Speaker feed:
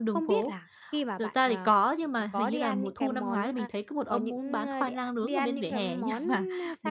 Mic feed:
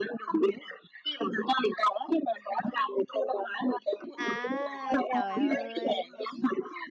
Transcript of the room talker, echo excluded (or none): À, trời ơi!